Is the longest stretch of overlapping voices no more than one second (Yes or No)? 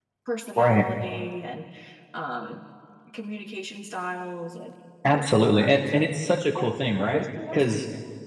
No